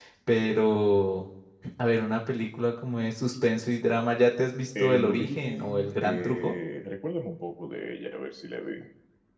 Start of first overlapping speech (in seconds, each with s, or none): 4.8 s